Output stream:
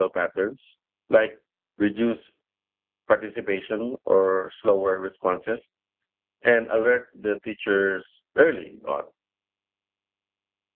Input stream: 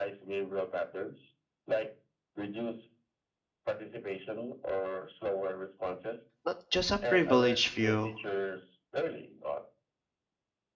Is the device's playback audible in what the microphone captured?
Yes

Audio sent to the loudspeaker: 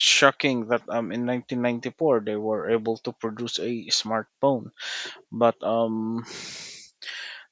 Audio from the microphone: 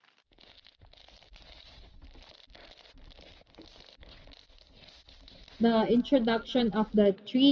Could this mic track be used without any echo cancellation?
Yes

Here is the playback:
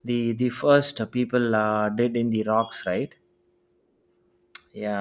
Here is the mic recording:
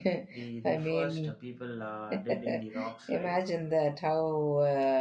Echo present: Yes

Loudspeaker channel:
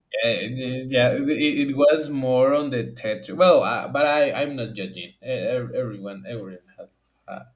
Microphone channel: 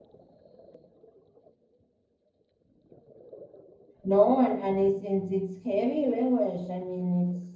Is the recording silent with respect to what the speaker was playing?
Yes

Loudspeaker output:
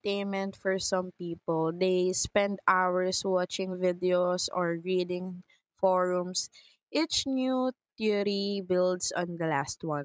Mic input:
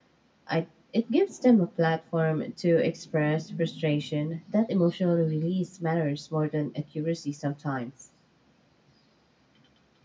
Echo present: No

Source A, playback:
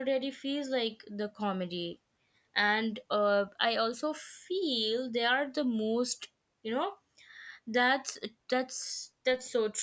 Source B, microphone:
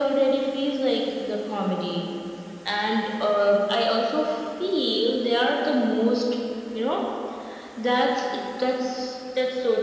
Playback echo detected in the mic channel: Yes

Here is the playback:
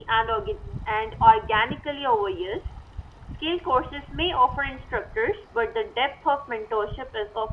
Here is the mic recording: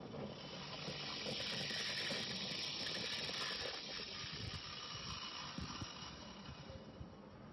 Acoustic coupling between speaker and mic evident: No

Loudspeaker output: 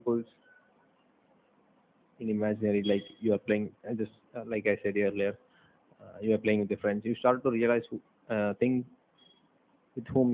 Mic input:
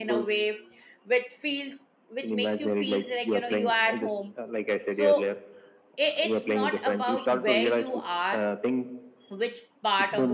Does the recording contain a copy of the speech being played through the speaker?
Yes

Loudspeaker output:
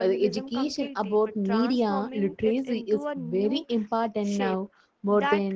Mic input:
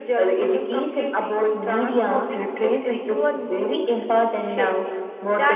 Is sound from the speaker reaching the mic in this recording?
Yes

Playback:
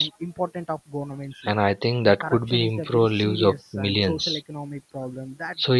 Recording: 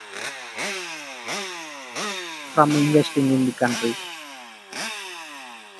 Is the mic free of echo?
Yes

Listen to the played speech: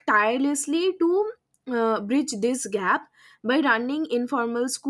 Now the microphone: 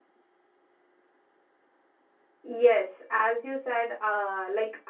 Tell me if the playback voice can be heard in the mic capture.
No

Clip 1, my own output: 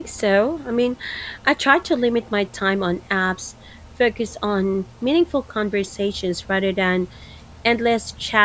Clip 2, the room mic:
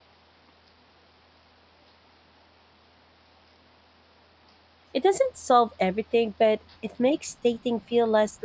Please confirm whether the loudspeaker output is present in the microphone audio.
No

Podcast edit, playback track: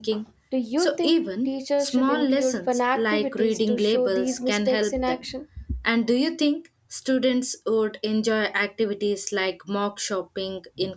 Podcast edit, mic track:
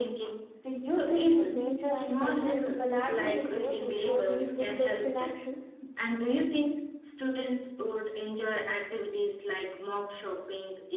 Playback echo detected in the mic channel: Yes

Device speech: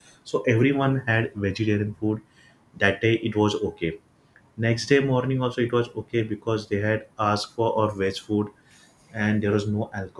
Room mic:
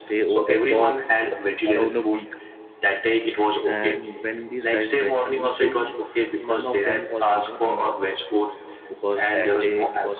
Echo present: Yes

